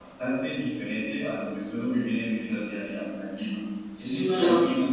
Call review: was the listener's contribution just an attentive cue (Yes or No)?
Yes